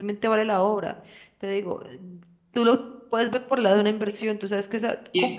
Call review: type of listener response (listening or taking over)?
taking over